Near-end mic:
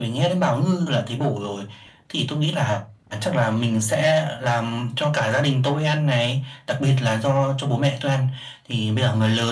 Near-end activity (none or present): none